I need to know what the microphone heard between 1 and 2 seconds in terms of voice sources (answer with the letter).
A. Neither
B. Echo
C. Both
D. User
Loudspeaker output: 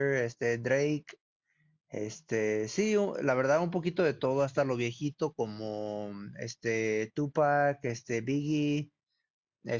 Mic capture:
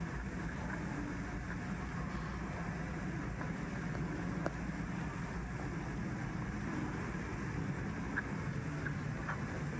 A